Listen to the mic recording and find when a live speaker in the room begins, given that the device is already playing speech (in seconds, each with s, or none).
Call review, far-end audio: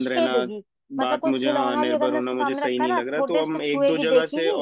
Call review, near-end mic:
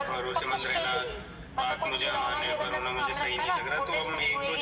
none